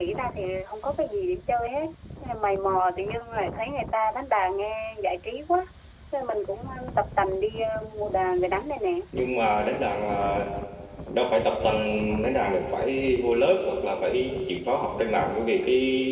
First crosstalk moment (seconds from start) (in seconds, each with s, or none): none